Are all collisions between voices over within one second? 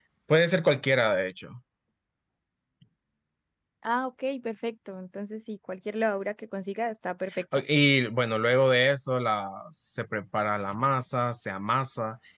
Yes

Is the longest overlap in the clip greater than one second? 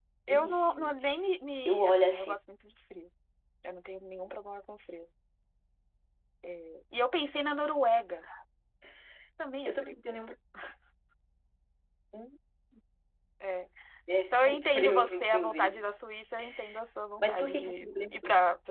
Yes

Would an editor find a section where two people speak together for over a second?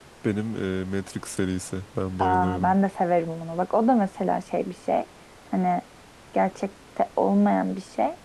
No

